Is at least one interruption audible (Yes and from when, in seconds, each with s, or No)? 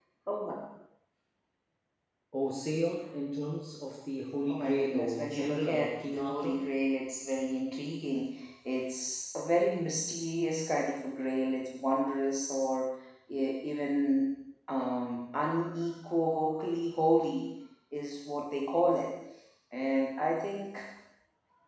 Yes, from 4.5 s